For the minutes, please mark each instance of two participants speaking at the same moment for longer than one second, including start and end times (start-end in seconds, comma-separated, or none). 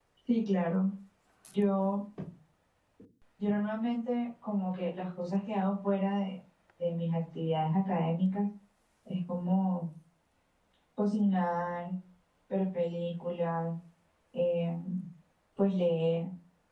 none